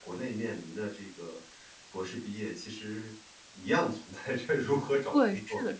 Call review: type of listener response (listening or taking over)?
taking over